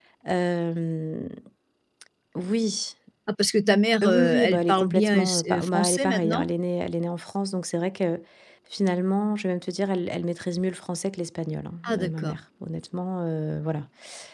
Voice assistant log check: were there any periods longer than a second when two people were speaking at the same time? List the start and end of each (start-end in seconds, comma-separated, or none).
4.0-6.5